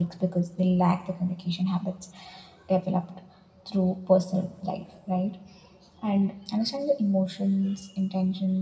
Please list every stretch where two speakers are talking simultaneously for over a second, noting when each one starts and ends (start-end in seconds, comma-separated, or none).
none